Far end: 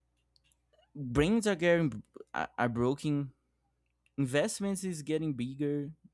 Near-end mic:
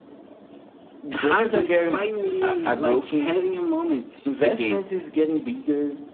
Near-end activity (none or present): present